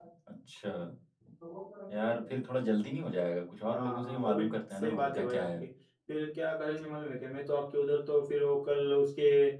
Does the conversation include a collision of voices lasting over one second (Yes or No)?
Yes